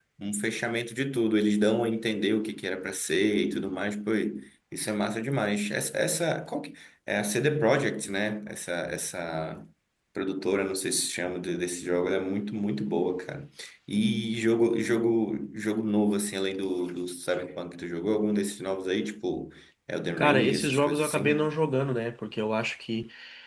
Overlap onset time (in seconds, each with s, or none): 20.2 s